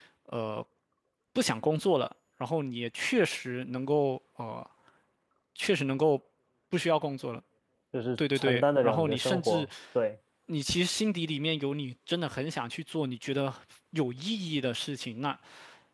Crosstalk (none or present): present